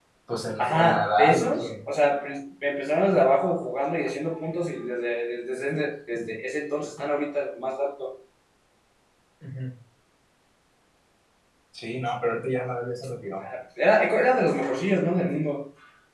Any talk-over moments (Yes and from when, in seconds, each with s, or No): Yes, from 0.6 s